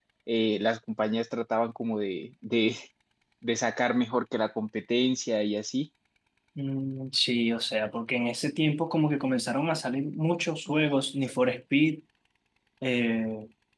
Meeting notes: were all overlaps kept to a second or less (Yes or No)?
Yes